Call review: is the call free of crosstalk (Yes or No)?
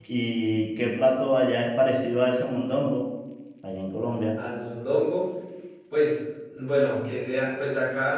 Yes